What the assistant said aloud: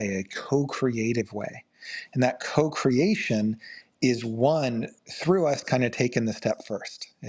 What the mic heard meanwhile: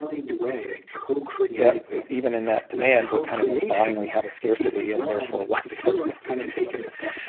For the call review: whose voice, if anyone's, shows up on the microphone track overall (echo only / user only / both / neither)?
both